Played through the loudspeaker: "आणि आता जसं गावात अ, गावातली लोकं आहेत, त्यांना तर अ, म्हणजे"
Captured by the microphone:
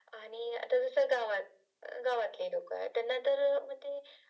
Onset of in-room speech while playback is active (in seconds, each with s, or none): none